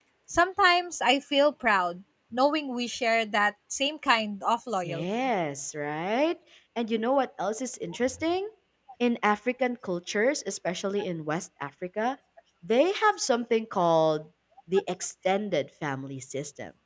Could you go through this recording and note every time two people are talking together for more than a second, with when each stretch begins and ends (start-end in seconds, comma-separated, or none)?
none